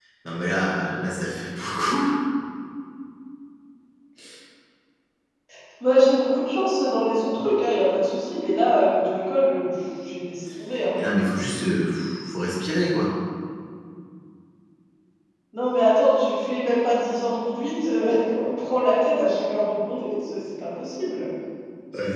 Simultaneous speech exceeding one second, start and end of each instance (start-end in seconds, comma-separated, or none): none